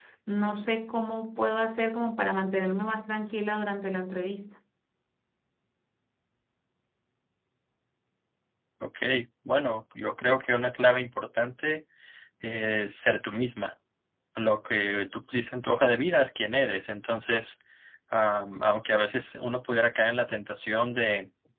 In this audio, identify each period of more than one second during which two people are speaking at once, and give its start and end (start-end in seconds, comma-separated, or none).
none